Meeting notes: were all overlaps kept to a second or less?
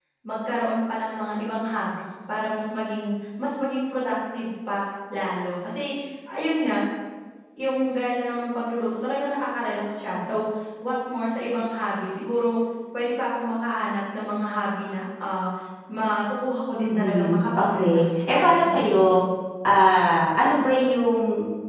No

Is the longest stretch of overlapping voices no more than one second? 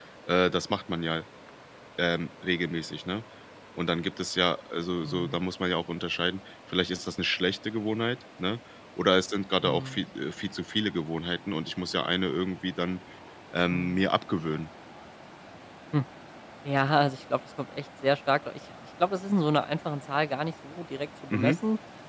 Yes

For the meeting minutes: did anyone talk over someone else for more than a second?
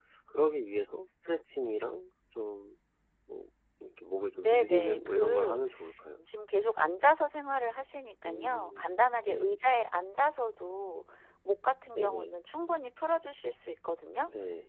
Yes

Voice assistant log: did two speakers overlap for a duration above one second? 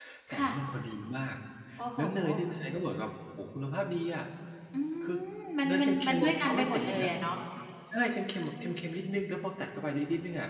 Yes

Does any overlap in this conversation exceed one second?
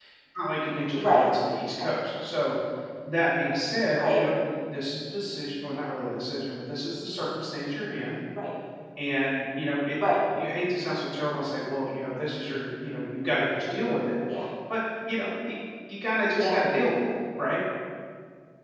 No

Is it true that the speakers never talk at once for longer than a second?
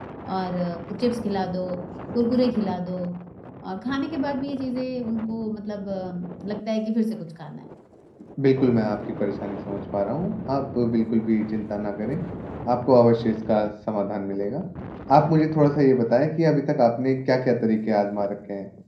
Yes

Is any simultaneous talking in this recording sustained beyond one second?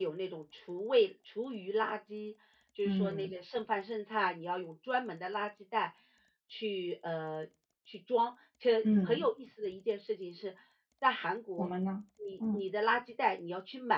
No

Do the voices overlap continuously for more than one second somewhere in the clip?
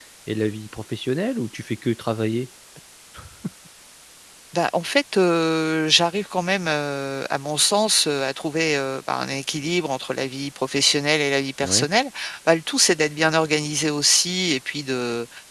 No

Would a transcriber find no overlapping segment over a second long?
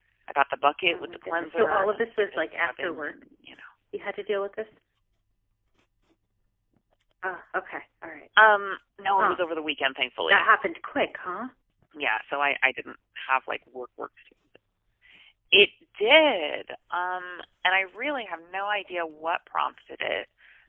No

